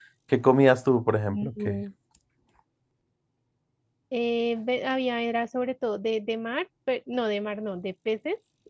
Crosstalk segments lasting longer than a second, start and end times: none

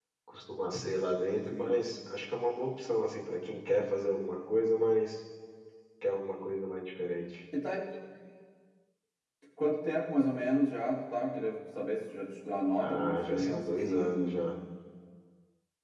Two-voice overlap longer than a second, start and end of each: 12.8-14.4

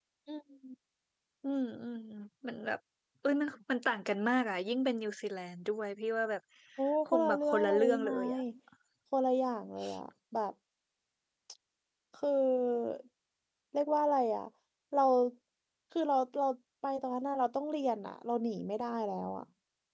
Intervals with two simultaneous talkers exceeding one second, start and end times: 7.0-8.4

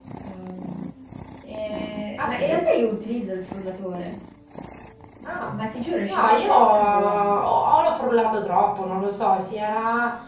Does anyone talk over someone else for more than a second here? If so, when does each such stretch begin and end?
6.1-7.3

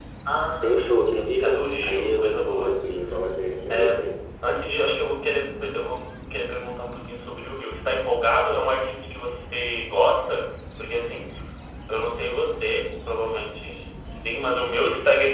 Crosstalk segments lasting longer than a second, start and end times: 0.6-2.7

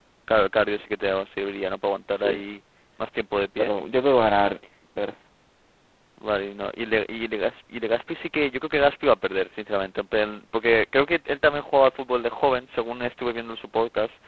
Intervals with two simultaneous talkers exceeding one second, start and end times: none

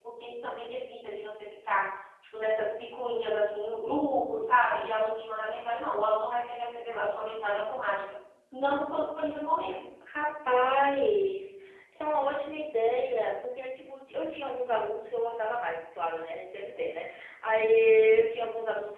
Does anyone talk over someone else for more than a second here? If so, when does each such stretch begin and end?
none

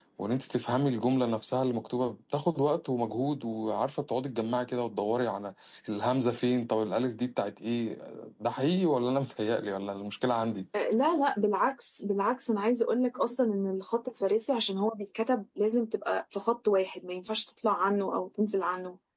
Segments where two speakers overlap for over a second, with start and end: none

